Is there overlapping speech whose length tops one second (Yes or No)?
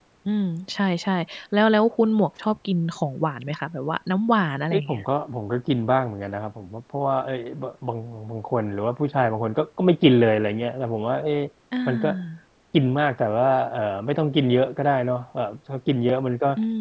No